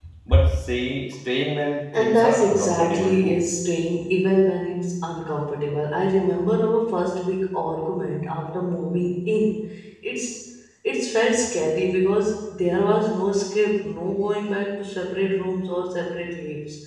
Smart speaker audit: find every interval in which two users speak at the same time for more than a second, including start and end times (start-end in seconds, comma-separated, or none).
1.9-3.4